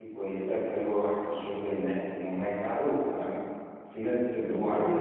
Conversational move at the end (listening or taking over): listening